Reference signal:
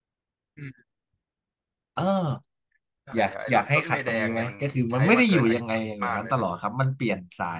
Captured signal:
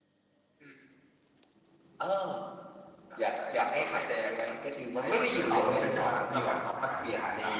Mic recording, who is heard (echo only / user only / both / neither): both